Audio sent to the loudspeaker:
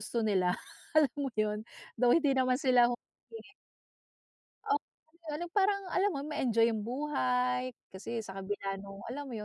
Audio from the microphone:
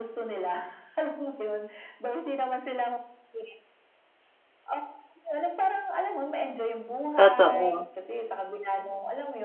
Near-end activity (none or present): present